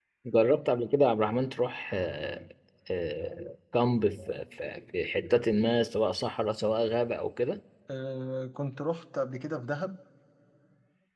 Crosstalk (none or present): none